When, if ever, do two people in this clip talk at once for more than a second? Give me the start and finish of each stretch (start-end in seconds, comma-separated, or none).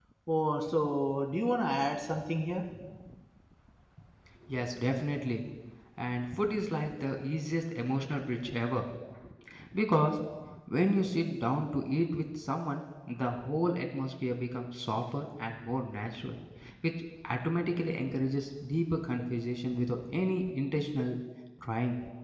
none